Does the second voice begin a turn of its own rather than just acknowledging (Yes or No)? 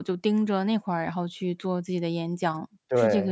Yes